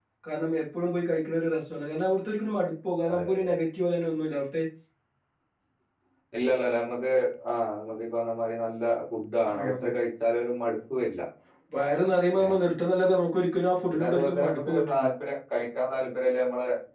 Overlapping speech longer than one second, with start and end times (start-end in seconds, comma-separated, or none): 13.9-15.1